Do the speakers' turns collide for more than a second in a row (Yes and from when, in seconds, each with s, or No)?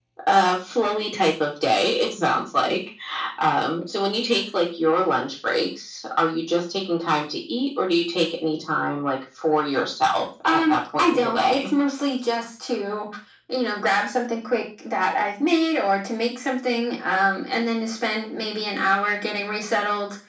Yes, from 10.4 s